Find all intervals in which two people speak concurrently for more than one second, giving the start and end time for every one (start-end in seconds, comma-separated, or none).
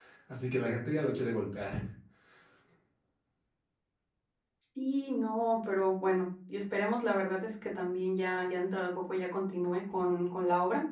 none